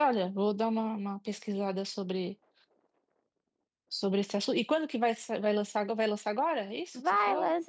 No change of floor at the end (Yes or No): No